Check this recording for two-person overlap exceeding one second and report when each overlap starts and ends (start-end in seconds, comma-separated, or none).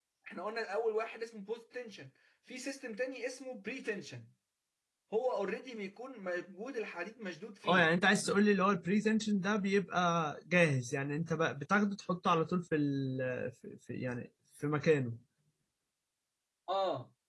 none